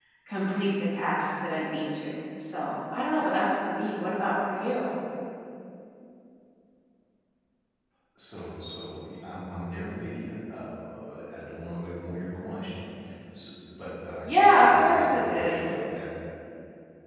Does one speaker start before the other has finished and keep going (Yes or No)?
Yes